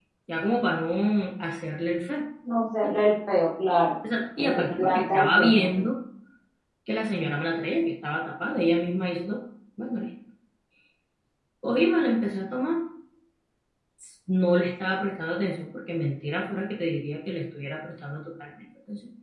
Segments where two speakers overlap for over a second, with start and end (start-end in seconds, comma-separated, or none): 4.4-5.7